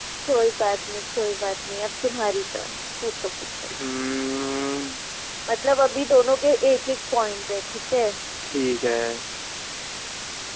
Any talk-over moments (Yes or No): No